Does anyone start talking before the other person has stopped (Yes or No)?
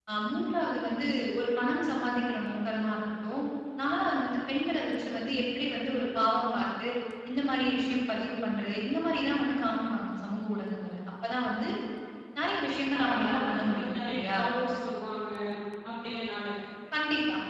Yes